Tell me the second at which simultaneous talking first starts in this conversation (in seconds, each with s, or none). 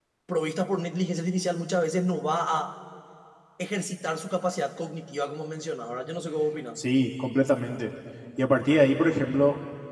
none